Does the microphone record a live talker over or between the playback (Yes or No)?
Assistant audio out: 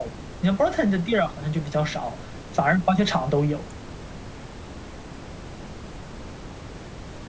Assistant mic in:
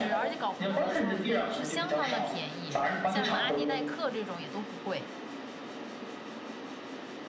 Yes